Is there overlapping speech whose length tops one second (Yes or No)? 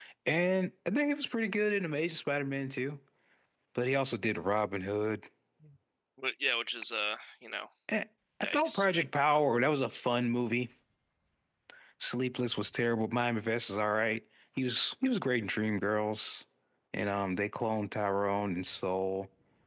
No